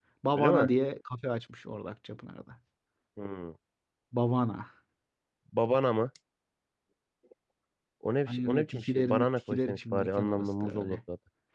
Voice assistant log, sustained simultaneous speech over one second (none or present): present